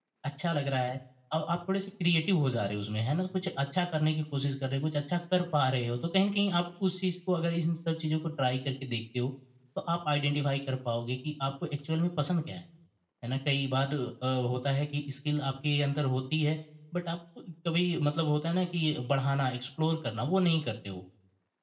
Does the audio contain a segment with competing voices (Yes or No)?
No